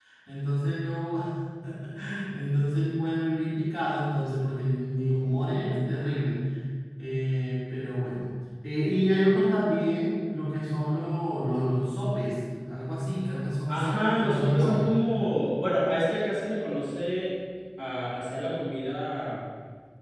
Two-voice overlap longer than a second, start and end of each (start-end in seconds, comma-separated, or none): 13.7-14.9